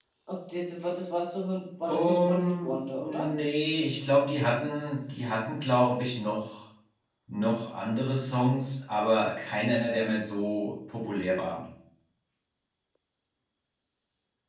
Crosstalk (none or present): present